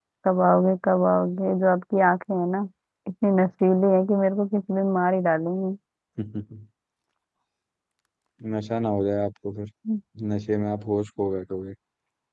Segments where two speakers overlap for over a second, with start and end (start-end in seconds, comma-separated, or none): none